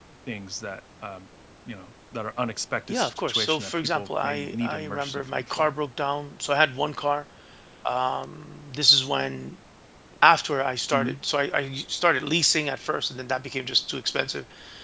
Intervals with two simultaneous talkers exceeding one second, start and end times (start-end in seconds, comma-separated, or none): 2.9-5.7